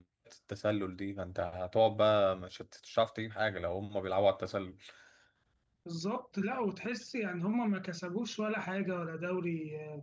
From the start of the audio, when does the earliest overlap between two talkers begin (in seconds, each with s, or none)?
none